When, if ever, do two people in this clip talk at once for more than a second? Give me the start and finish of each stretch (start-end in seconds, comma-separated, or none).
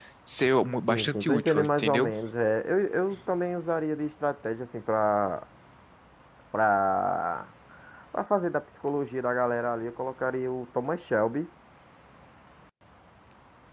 0.8-2.1